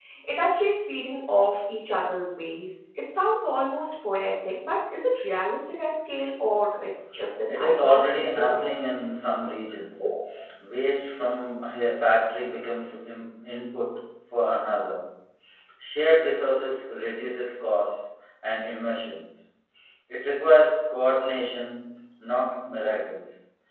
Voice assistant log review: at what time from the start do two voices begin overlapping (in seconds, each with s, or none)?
7.5 s